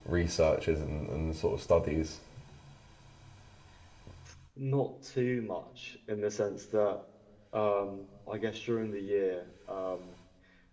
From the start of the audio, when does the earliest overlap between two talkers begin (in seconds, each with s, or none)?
none